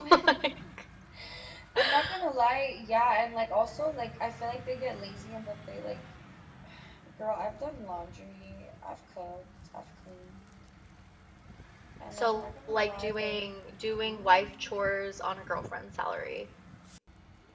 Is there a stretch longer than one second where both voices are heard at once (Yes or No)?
Yes